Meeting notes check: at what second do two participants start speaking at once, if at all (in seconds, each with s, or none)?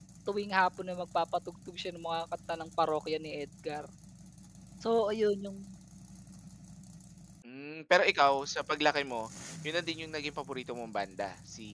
none